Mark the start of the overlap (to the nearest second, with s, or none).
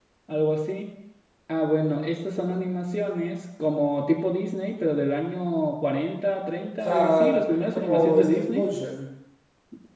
7 s